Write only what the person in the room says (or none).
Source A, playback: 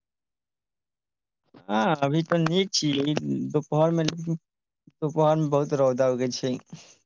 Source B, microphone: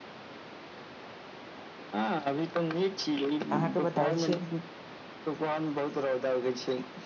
अहाँके बताबै छियै